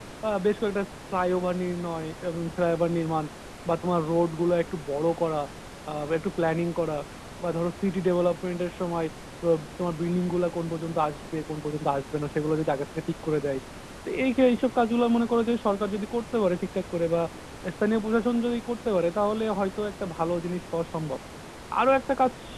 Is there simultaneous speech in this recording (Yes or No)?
No